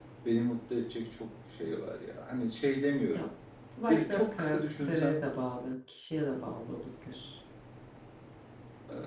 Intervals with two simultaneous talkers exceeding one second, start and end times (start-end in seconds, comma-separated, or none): 3.9-5.3